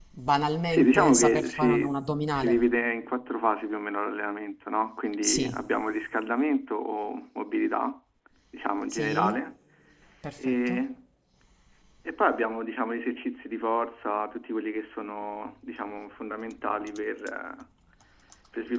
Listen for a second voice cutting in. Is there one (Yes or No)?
Yes